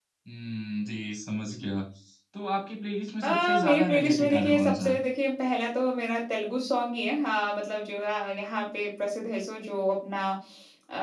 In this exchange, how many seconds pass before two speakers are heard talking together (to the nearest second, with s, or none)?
3 s